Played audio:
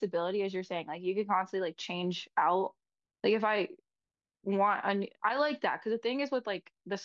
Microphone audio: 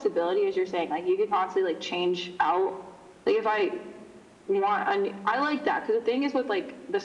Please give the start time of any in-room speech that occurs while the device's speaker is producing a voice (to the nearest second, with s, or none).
none